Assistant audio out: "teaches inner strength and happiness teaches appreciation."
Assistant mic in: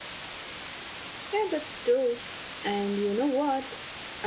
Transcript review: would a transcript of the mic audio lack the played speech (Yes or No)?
Yes